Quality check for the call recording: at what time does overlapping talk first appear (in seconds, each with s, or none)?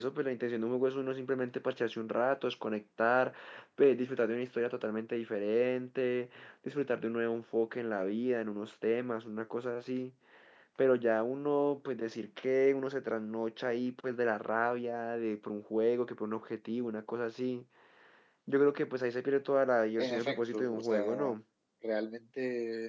20.0 s